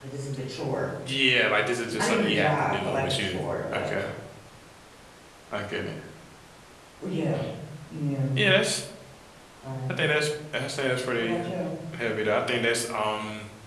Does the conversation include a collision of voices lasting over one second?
Yes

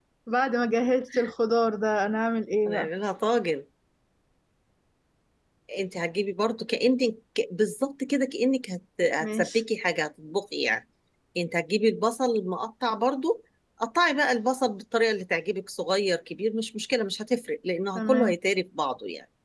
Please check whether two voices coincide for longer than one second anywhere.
No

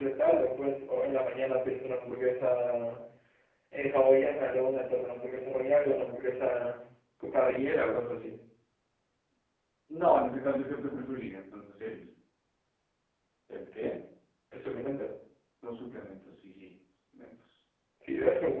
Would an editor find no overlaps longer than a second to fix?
Yes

